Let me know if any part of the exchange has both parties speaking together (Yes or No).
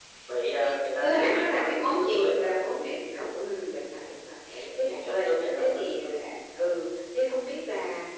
Yes